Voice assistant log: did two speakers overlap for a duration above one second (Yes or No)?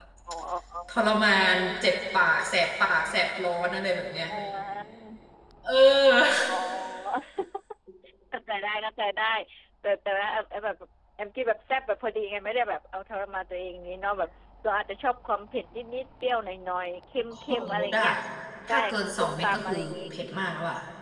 Yes